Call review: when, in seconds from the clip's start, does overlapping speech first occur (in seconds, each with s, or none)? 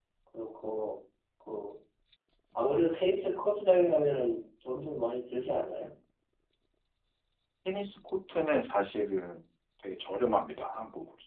none